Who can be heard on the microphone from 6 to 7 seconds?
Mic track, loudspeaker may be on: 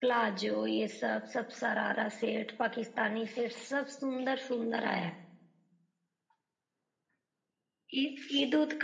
neither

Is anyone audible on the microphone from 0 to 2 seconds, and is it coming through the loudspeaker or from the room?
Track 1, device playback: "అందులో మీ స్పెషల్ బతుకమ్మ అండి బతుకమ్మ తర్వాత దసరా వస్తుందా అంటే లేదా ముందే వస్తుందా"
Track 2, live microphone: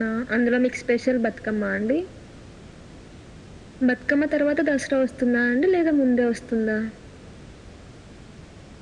echo only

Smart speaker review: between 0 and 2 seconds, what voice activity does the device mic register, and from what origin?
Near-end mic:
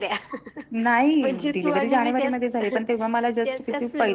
echo only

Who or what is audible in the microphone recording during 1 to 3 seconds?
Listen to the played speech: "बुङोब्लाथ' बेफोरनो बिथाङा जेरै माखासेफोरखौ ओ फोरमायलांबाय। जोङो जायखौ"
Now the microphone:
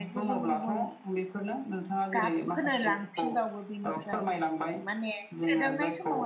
both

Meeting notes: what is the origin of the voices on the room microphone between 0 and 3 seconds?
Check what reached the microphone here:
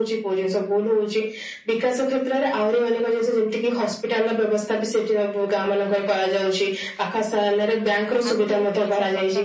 echo only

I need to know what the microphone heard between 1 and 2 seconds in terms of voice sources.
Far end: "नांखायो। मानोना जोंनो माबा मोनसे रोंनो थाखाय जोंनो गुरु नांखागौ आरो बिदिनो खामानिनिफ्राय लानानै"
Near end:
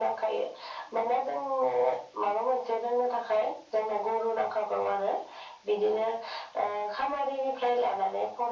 echo only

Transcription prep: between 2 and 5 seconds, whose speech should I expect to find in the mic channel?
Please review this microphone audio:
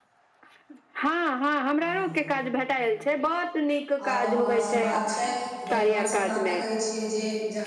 both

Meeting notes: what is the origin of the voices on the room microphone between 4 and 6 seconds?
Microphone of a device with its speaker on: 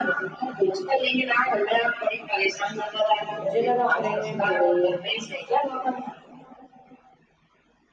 both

